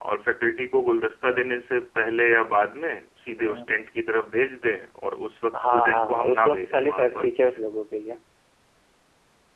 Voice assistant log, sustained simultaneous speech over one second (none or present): present